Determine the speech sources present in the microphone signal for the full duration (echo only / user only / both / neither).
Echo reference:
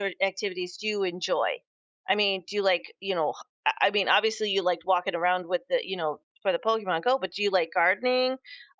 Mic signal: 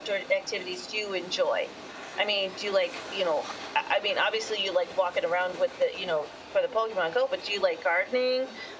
echo only